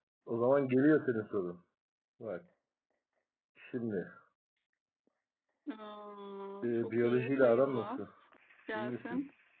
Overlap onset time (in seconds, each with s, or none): 6.6 s